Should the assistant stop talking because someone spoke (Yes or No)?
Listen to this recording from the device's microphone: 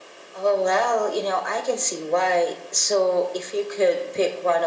No